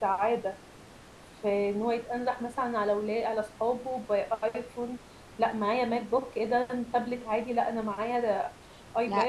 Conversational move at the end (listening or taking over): taking over